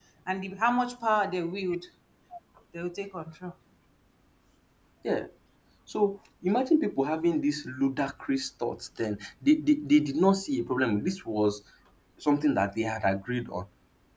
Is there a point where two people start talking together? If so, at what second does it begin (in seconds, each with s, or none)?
none